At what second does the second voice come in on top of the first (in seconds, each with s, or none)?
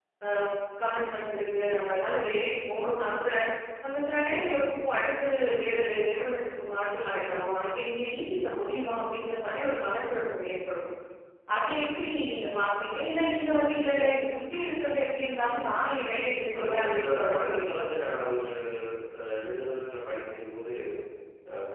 16.5 s